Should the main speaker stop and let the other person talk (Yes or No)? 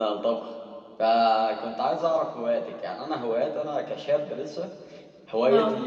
No